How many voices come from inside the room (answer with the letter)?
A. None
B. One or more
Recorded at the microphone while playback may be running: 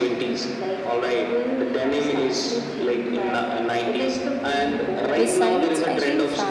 B